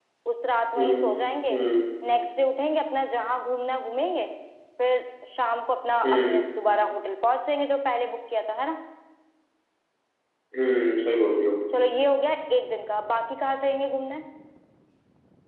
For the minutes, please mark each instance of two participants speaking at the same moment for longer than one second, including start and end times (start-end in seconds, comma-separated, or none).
none